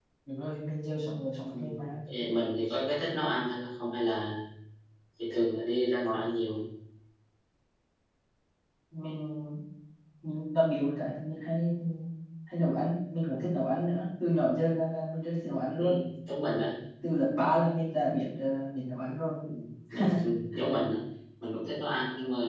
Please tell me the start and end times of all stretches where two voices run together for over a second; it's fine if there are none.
none

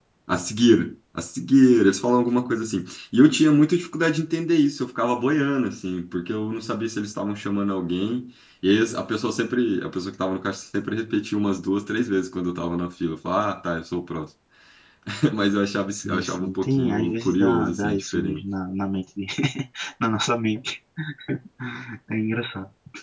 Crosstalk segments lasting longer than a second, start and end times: 15.9-18.4

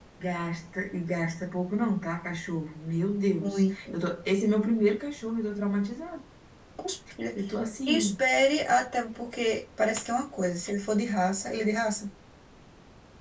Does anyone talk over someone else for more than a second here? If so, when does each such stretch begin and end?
none

